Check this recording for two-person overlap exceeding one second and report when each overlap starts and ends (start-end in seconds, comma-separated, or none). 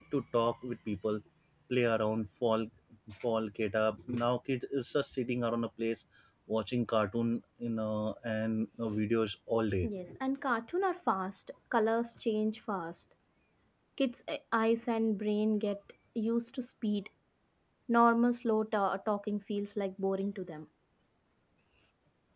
none